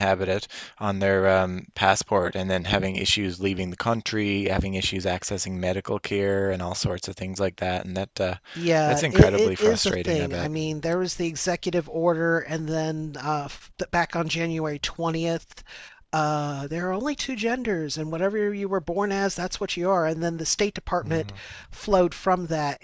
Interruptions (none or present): present